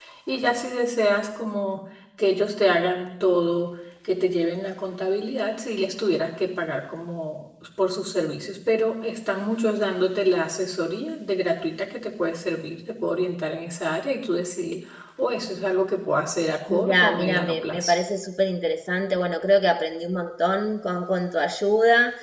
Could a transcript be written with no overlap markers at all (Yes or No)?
No